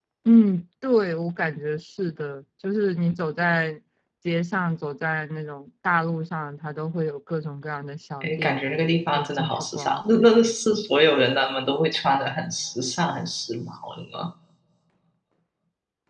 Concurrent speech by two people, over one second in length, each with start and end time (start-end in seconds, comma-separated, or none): 8.2-10.2